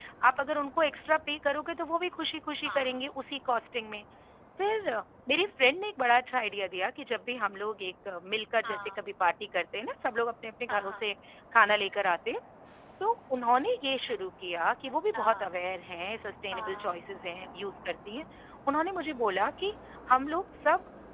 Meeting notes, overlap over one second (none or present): none